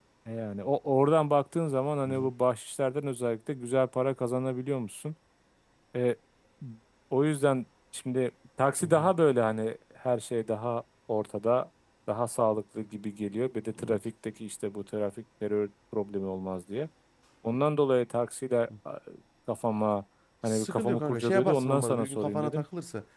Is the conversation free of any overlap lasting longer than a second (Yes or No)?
No